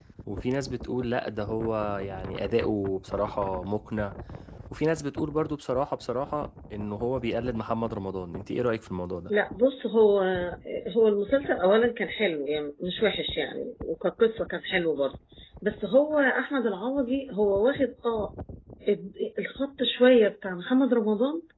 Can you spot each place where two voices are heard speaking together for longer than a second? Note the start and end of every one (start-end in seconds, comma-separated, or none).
none